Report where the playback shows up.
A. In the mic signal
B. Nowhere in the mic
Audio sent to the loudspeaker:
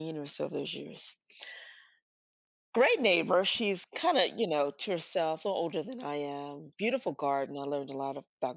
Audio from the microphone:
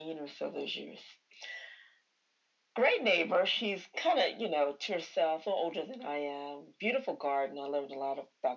A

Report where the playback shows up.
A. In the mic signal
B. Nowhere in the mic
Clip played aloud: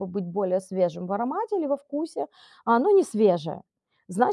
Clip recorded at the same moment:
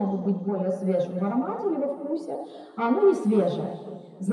A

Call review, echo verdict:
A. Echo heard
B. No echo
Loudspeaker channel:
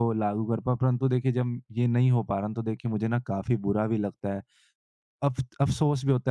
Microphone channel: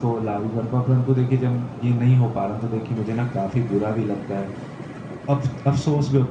A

